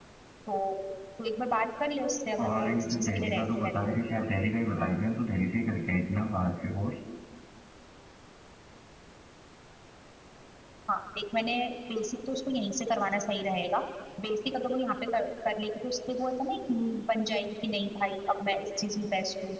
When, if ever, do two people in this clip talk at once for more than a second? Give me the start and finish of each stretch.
2.4-3.9

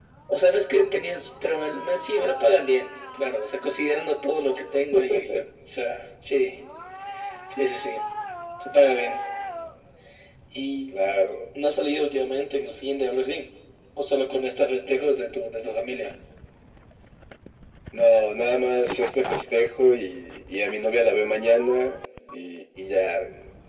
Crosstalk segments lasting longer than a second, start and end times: none

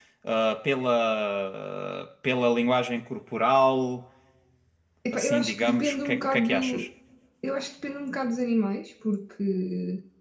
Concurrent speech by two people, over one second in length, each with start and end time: 5.1-6.9

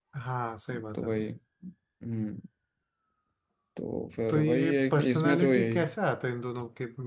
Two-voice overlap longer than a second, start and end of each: 4.3-5.8

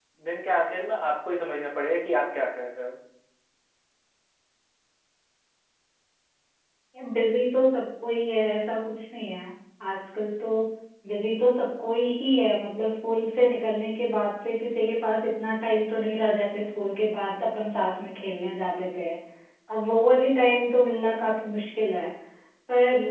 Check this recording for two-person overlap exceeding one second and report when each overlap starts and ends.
none

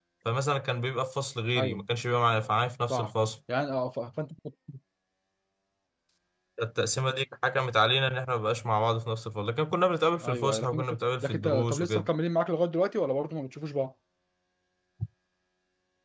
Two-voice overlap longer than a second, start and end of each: 10.2-12.1

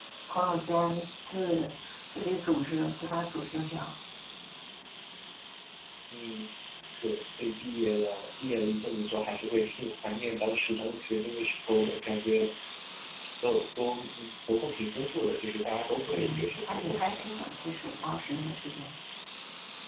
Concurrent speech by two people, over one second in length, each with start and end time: 16.1-17.5

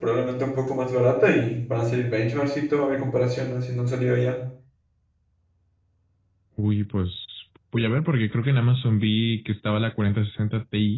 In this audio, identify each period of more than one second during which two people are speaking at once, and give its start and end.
none

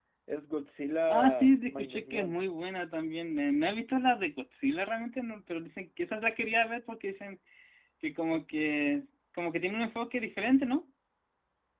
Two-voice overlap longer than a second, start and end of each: 1.1-2.4

